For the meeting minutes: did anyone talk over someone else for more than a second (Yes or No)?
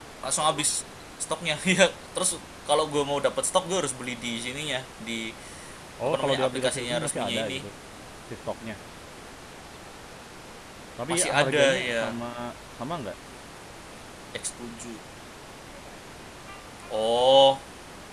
Yes